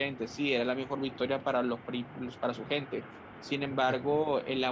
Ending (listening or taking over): listening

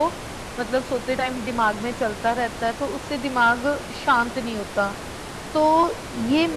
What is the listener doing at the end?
listening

